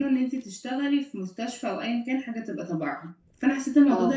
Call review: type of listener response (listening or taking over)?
listening